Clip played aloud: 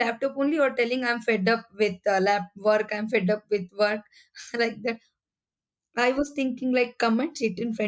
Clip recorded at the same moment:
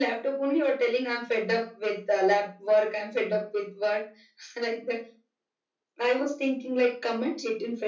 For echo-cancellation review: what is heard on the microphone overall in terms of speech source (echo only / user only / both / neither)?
echo only